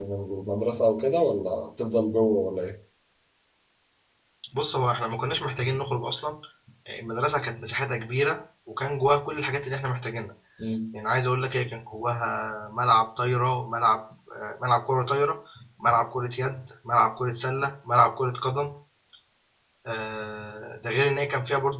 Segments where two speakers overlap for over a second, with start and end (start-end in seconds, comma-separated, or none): none